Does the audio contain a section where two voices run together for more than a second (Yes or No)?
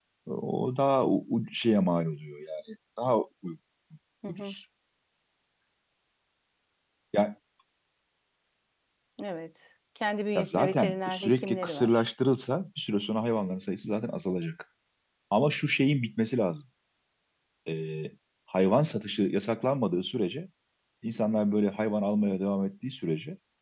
Yes